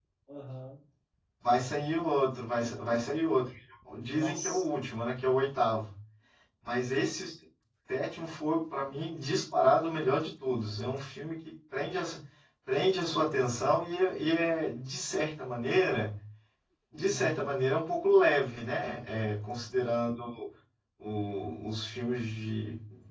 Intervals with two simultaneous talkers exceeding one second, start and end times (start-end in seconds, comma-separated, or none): none